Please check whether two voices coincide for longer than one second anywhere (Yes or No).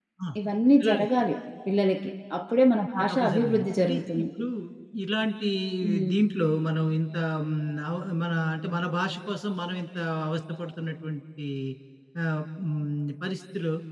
Yes